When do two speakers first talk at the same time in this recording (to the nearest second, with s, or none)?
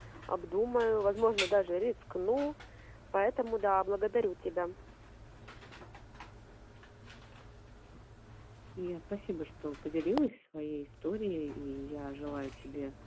none